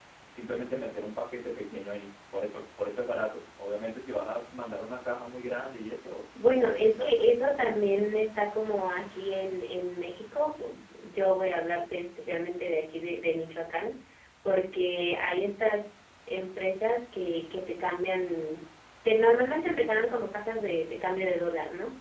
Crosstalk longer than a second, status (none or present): present